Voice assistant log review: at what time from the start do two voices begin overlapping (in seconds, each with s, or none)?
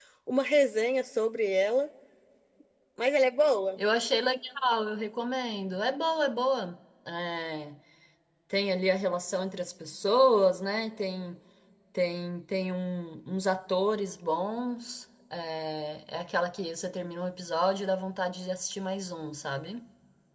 none